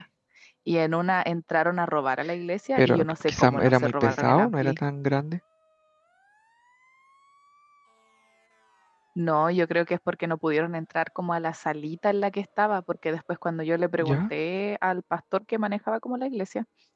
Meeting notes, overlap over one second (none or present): present